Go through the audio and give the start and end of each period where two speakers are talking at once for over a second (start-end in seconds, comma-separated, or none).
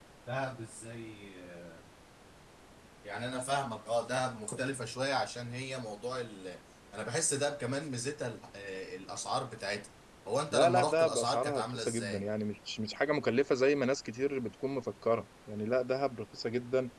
10.5-12.2